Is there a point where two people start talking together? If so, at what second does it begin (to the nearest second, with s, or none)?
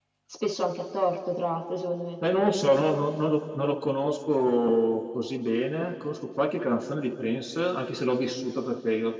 none